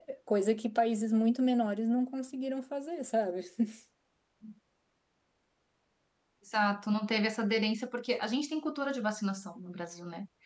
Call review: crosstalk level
none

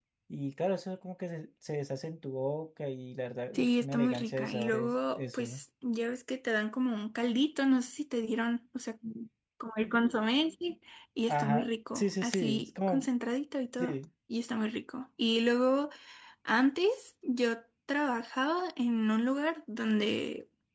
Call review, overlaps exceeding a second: present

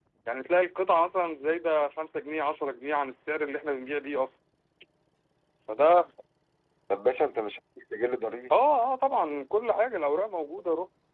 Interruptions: none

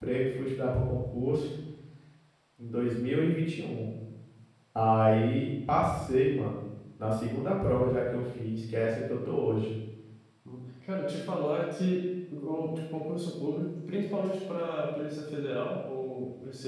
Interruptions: none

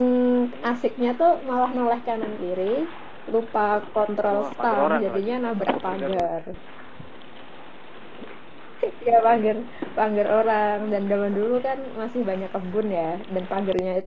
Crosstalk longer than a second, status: present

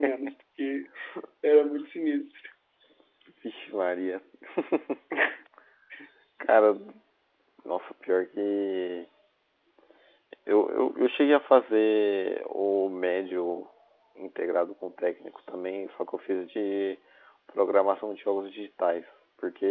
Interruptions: none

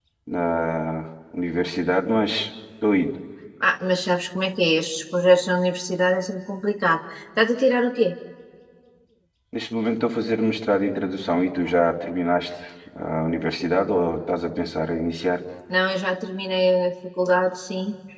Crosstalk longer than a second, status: none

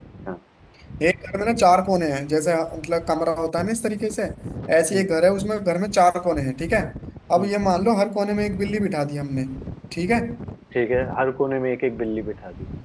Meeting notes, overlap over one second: none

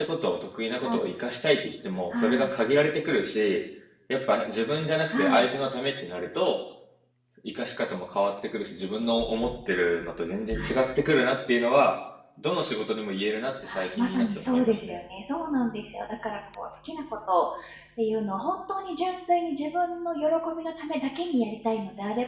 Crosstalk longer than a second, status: present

